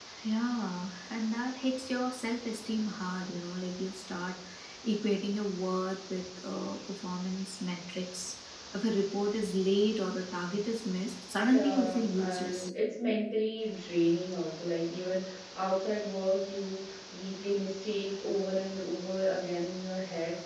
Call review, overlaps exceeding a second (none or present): present